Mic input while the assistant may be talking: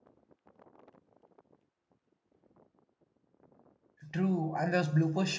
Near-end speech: present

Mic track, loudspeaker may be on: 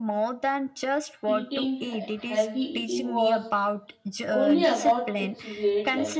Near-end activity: present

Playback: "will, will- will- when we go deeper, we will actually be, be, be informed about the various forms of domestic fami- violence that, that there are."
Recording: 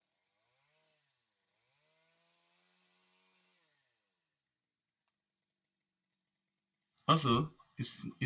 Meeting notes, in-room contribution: present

